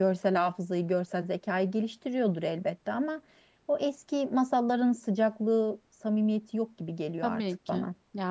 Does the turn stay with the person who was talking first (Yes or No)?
No